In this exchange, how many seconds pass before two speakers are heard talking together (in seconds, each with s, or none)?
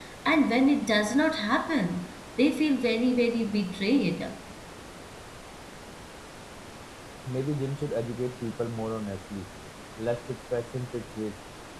none